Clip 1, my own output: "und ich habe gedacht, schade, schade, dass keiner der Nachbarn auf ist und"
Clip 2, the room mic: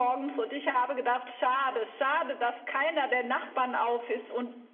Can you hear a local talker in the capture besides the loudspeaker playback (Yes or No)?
No